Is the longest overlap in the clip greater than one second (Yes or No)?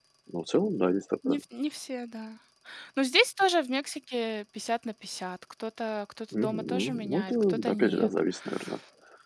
Yes